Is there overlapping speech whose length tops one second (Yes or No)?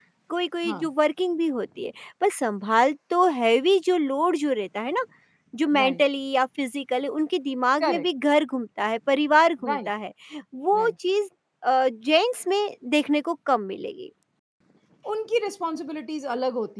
No